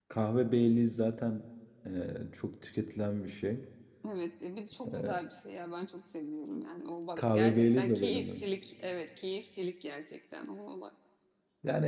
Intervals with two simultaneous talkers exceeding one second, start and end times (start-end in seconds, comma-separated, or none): 7.2-8.4